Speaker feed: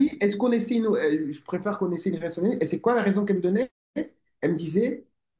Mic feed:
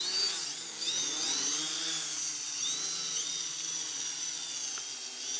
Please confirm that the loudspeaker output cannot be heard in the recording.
Yes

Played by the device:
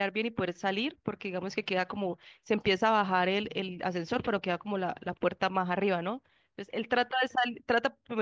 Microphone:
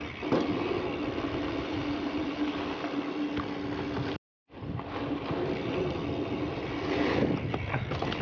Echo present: No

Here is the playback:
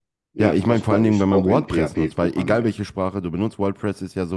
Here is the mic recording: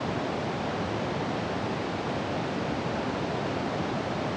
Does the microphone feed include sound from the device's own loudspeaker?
No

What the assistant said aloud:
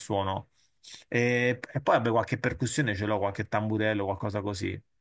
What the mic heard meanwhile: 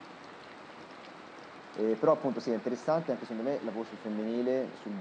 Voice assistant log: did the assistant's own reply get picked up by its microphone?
No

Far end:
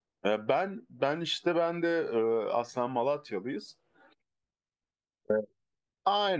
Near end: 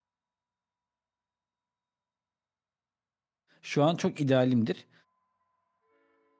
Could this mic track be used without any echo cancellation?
Yes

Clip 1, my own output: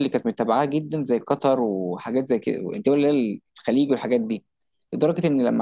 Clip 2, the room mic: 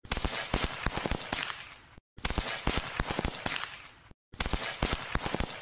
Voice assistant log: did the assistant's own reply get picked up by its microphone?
No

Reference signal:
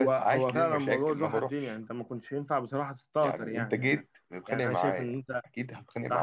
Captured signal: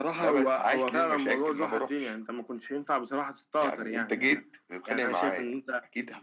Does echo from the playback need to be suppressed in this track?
Yes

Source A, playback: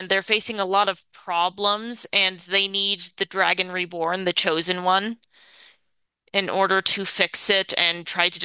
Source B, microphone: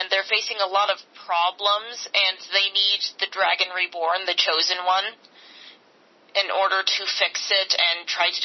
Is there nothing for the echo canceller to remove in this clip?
No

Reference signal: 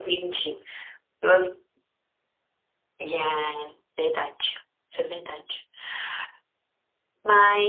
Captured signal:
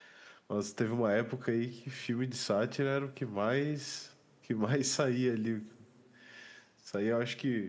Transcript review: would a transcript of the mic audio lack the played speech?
Yes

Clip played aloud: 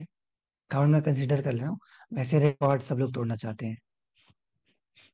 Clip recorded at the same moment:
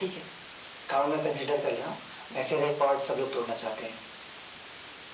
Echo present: Yes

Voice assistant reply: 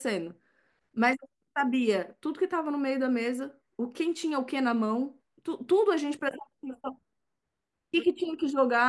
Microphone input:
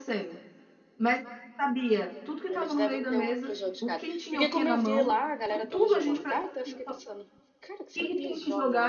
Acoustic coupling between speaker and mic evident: Yes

